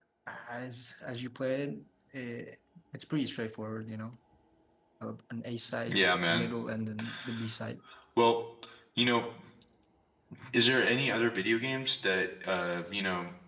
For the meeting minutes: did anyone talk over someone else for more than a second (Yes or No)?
No